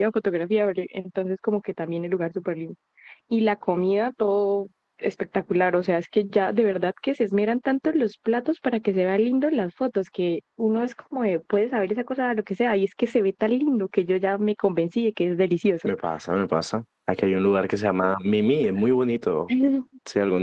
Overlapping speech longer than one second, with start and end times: none

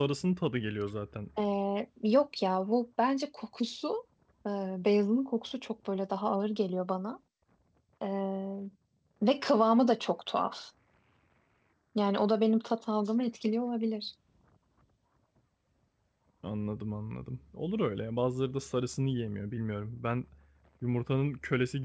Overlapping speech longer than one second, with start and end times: none

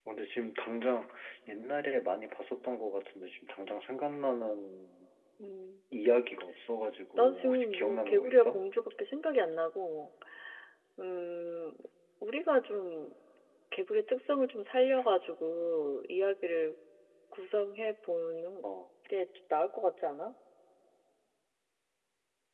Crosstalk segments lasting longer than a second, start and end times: 7.2-8.6

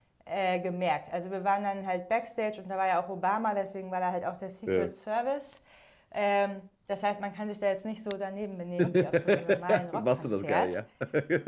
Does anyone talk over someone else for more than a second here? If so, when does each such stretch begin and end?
8.8-10.7

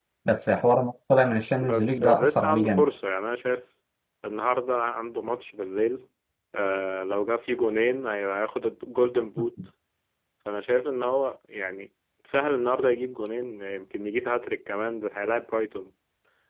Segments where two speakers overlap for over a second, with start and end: 1.6-2.9

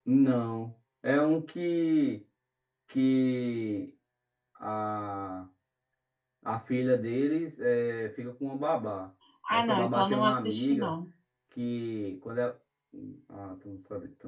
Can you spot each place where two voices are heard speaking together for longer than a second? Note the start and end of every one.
9.5-10.9

